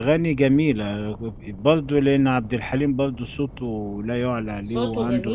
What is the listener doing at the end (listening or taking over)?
taking over